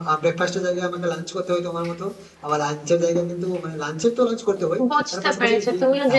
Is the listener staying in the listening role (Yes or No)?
No